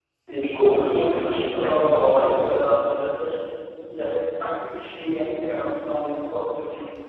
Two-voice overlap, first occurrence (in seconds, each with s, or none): 0.9 s